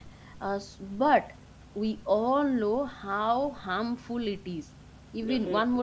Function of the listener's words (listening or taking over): listening